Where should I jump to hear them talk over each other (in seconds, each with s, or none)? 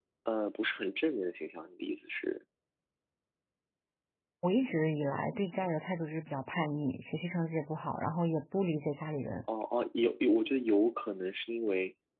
none